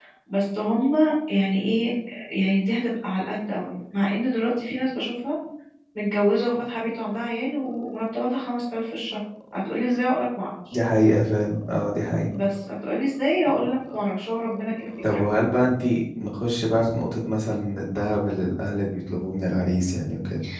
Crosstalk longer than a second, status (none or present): none